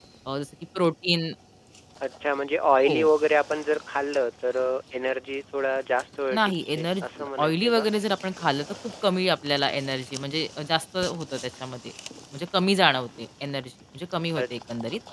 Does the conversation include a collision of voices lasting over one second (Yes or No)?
Yes